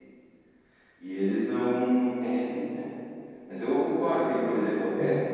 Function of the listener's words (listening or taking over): listening